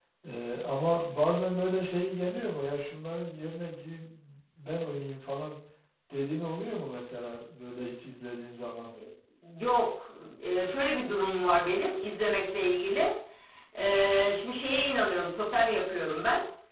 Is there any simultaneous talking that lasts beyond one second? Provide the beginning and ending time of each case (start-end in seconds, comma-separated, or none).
none